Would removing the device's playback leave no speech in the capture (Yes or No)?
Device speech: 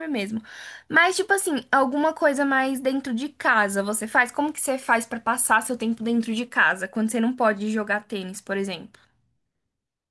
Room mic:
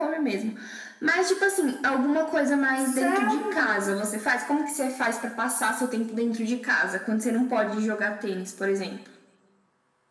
No